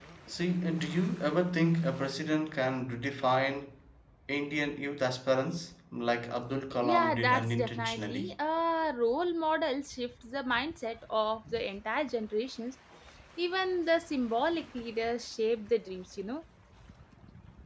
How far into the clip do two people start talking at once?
6.7 s

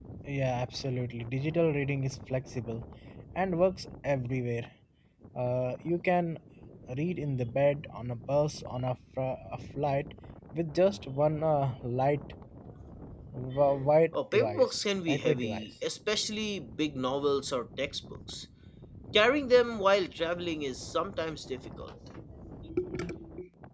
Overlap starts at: 14.1 s

